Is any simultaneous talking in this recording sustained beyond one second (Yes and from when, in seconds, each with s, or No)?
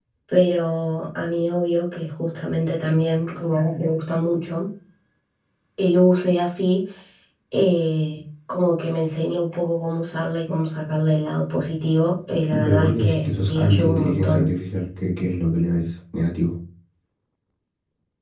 Yes, from 12.5 s